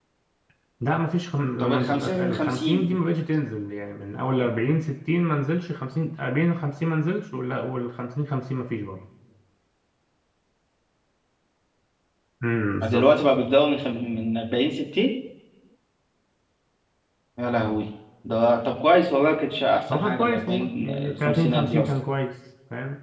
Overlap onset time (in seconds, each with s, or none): 1.6 s